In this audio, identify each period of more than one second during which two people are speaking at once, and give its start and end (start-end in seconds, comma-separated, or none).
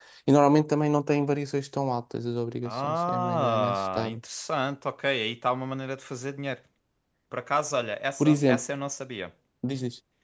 2.6-4.2